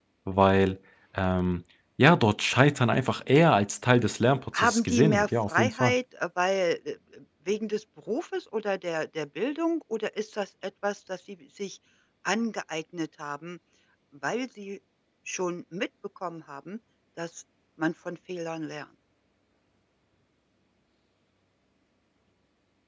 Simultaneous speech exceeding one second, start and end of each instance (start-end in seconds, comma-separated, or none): 4.6-5.9